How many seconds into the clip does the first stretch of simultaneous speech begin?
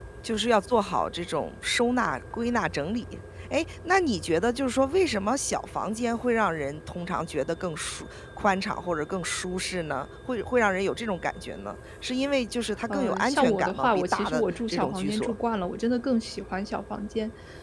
12.9 s

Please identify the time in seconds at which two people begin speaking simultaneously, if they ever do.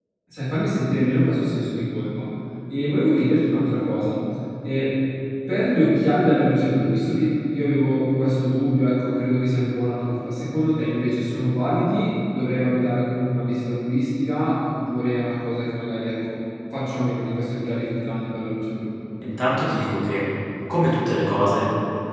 none

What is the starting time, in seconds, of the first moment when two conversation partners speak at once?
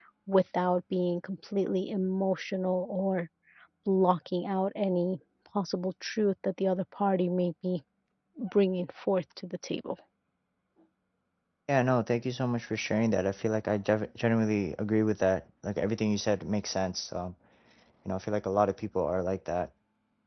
none

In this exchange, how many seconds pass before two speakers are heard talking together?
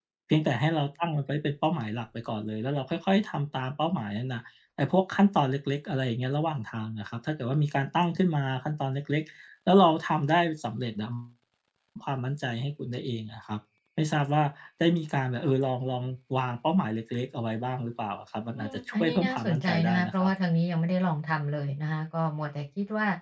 18.6 s

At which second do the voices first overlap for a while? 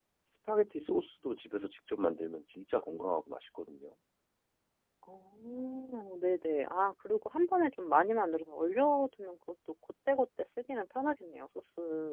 none

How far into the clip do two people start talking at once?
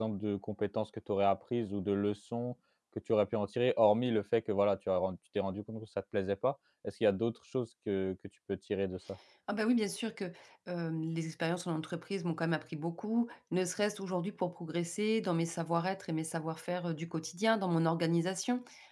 none

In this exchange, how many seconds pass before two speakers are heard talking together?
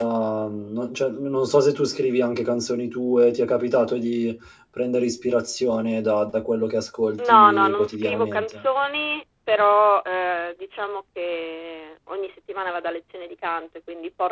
7.2 s

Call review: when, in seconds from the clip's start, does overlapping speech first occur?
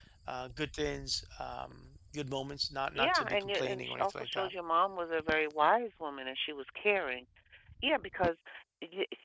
3.0 s

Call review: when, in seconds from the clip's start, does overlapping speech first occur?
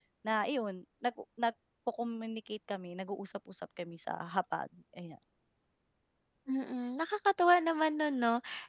none

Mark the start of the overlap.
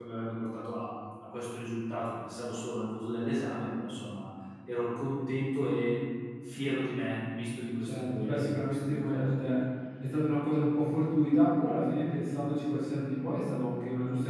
7.8 s

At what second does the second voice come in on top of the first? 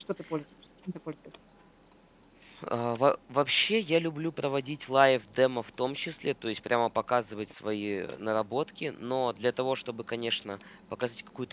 none

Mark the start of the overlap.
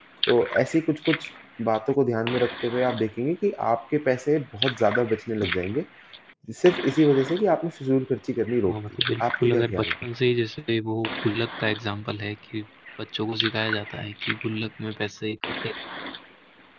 8.6 s

